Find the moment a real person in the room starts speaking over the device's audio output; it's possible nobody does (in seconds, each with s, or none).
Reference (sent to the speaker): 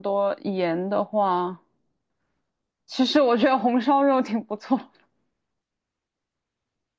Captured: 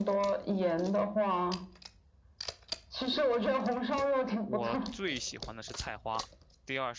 4.4 s